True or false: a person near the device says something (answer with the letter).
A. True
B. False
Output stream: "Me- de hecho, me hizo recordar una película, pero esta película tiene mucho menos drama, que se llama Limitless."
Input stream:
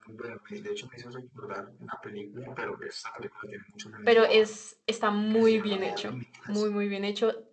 A